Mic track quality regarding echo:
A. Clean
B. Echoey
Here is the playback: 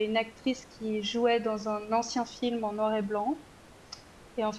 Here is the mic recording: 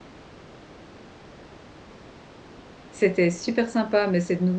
A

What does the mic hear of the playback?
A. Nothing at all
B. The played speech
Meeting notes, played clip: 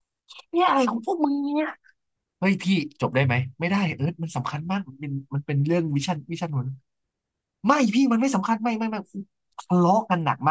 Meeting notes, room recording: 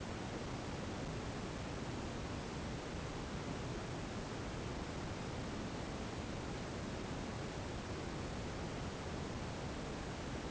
A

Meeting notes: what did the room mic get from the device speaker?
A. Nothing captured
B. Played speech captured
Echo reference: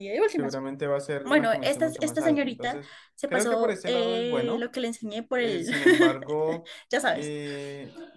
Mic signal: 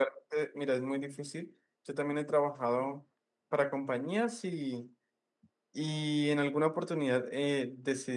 A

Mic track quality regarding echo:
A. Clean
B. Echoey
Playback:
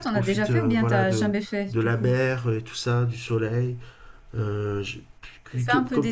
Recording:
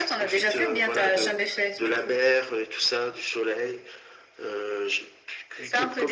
B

